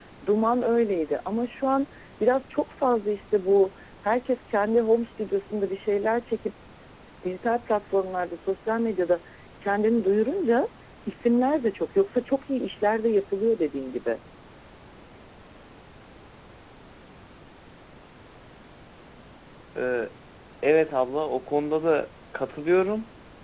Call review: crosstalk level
none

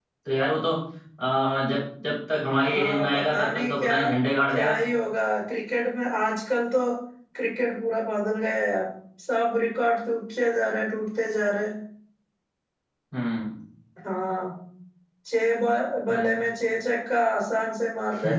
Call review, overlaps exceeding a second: present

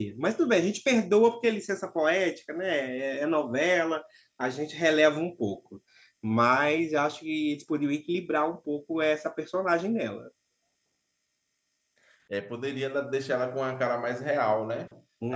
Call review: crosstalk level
none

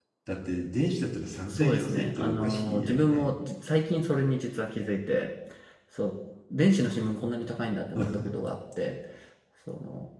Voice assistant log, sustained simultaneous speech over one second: present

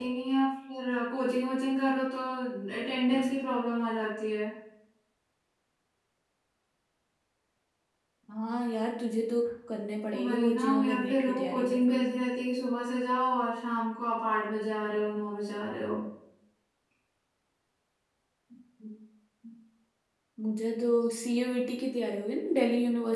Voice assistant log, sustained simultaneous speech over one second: present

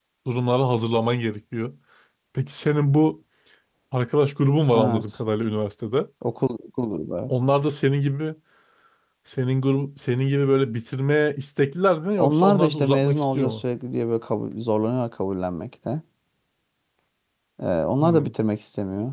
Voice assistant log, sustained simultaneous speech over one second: present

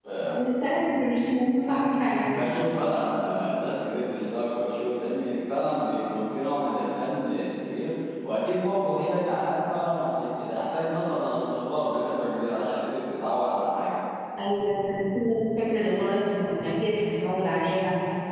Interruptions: none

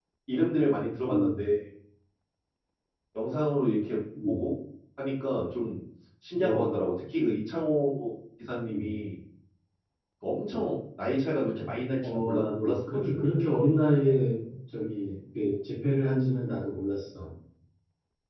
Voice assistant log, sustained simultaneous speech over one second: present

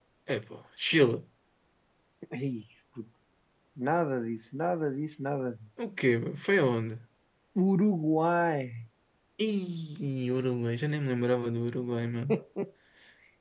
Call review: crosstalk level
none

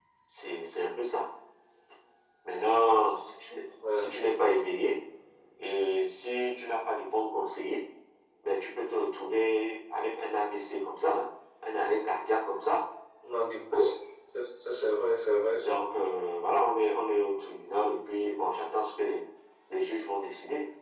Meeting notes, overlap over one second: none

